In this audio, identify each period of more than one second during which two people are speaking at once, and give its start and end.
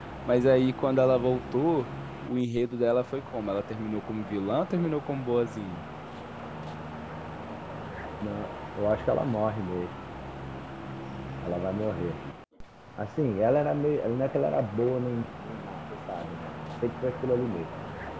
none

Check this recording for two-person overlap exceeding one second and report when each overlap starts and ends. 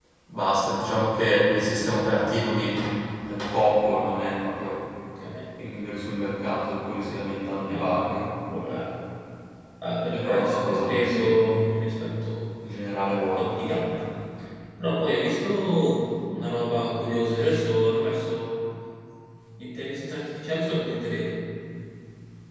10.1-11.6

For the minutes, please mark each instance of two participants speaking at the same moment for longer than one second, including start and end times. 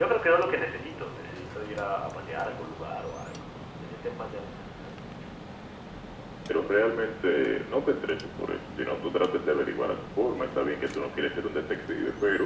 none

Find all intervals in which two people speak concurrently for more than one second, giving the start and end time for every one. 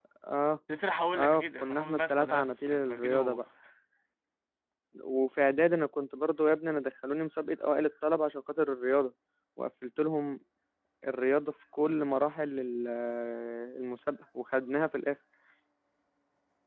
1.2-3.4

